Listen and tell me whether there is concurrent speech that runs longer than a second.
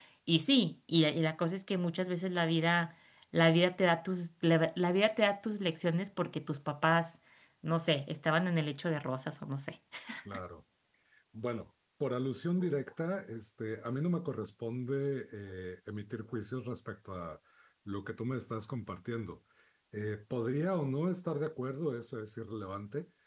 No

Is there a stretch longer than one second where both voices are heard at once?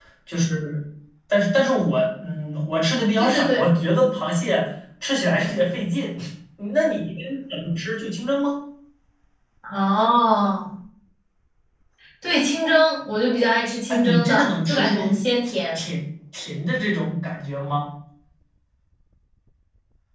Yes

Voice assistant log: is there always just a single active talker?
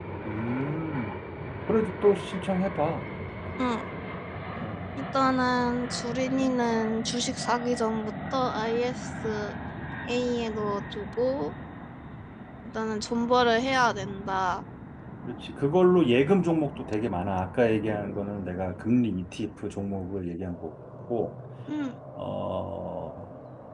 Yes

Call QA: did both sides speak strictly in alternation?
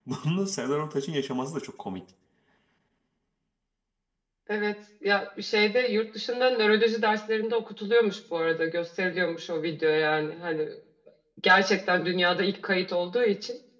Yes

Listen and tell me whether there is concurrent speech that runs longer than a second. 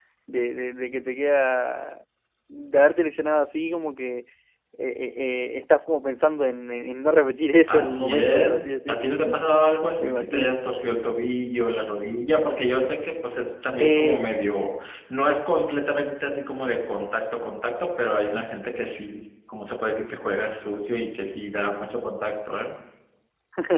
Yes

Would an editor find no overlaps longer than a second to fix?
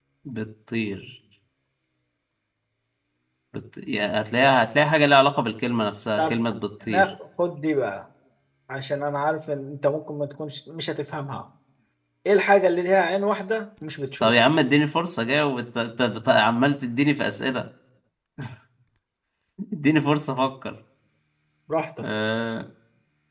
Yes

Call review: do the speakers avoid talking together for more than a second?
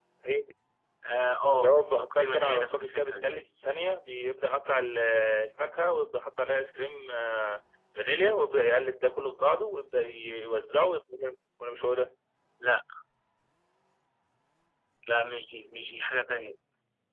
No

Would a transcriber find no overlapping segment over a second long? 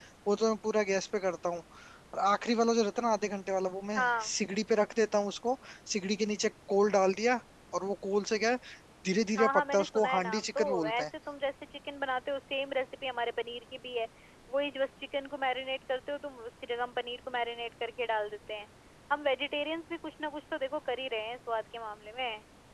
No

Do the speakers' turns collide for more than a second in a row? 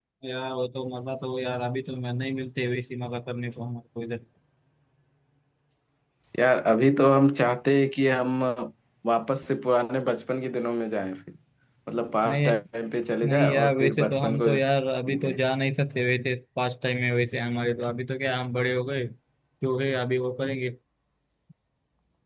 Yes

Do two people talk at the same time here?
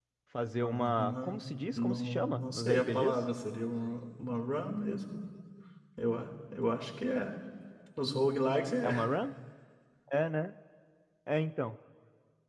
Yes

